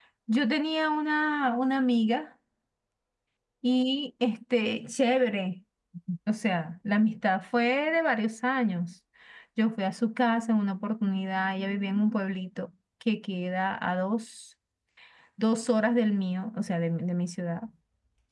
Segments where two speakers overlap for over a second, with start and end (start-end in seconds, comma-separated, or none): none